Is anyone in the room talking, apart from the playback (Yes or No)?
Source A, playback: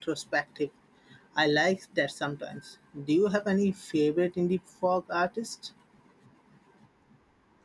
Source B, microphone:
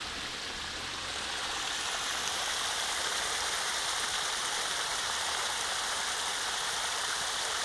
No